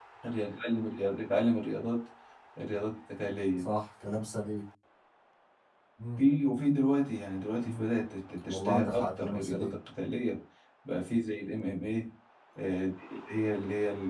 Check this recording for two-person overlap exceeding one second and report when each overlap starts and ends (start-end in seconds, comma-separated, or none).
8.5-9.7